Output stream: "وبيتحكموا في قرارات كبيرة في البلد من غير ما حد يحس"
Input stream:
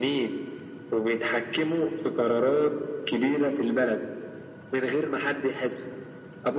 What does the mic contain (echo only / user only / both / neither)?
echo only